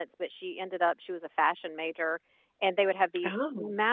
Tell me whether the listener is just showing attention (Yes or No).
Yes